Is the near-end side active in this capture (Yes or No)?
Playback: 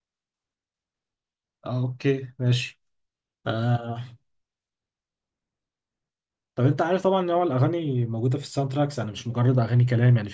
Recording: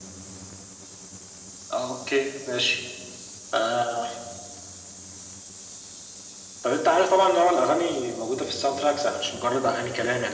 No